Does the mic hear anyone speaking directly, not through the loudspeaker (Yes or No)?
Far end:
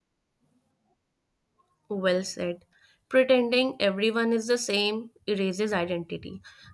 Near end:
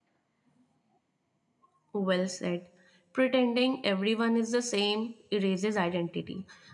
No